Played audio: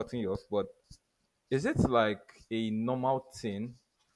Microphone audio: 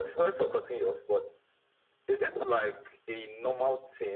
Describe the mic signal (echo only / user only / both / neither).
echo only